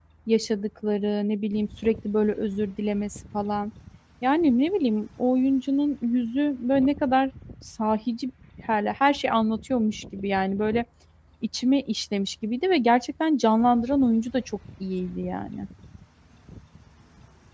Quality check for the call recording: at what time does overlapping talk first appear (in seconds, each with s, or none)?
none